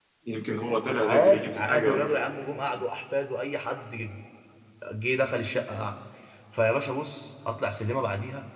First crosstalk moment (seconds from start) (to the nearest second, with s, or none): 1 s